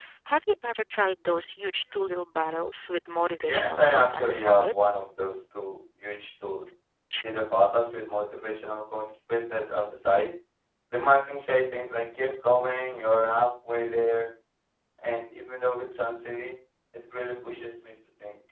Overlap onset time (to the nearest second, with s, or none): 3 s